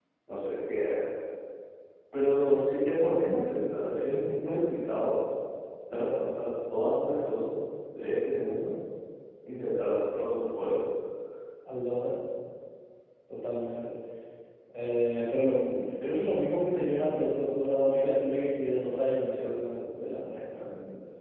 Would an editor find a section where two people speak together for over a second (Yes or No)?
No